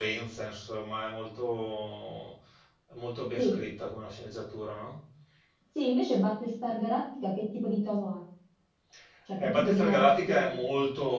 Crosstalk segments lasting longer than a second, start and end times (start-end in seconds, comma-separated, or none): 9.4-10.6